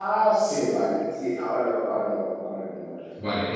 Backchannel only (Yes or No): No